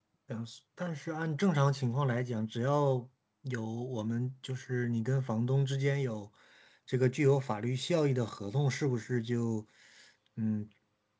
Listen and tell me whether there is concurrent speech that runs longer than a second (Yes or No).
No